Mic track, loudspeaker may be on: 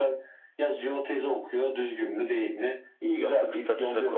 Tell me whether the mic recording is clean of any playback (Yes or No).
No